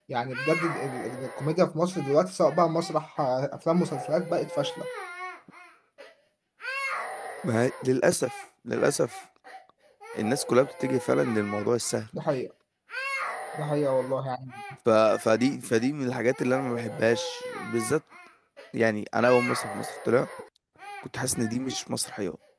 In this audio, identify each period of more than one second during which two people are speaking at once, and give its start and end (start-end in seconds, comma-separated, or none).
none